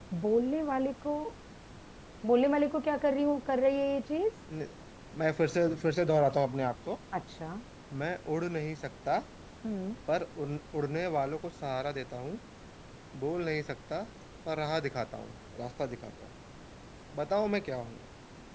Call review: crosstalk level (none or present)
none